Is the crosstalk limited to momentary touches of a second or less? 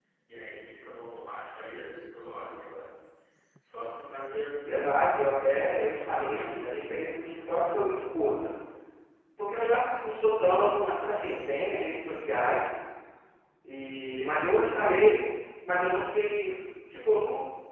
No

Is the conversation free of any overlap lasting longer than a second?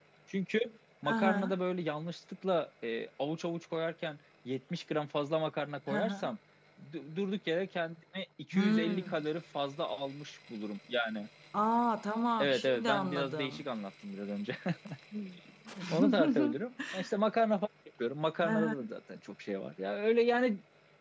No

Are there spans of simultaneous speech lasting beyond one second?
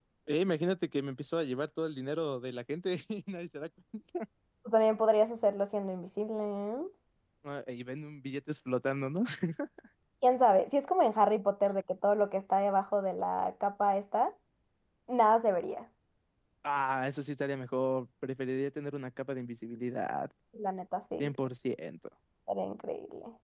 No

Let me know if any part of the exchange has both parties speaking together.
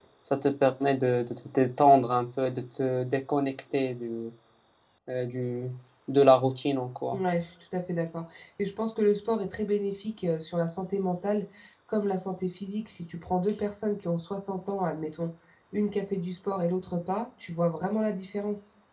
No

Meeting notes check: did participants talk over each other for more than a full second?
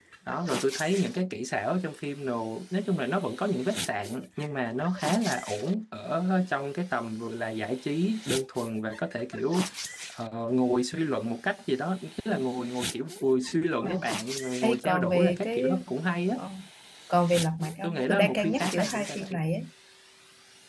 Yes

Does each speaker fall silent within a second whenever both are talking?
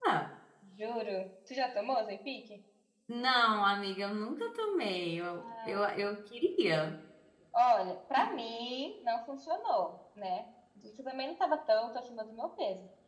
Yes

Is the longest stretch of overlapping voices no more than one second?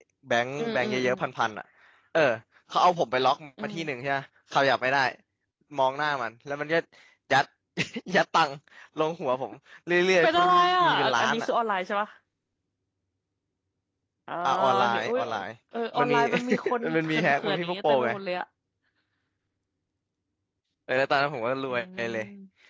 No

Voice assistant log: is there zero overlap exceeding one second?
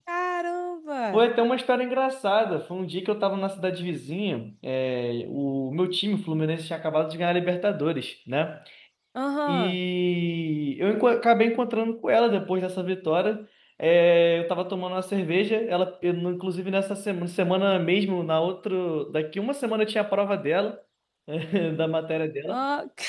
Yes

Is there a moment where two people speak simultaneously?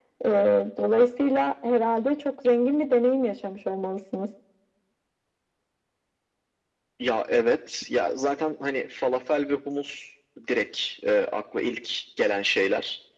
No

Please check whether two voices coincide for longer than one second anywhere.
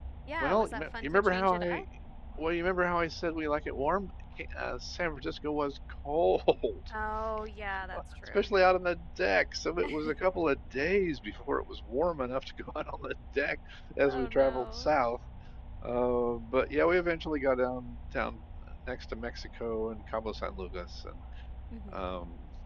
Yes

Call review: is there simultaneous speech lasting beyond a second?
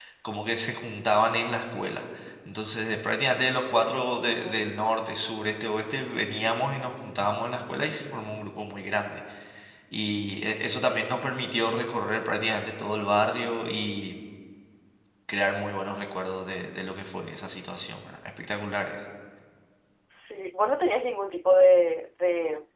No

